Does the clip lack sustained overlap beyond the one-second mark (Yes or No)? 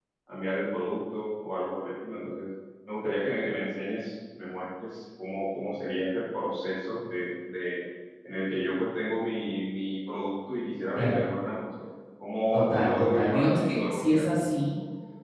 No